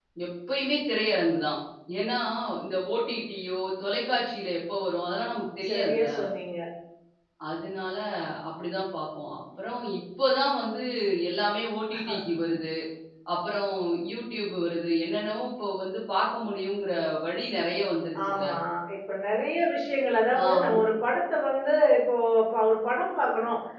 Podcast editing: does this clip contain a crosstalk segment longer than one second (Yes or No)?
No